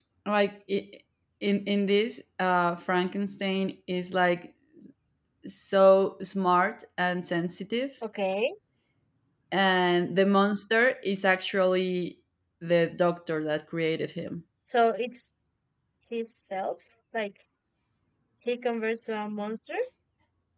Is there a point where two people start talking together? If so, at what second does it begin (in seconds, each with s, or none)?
none